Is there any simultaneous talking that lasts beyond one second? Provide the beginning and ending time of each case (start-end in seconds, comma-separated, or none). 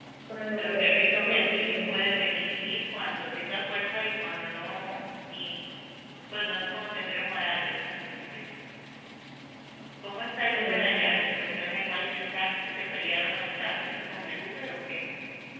0.6-1.9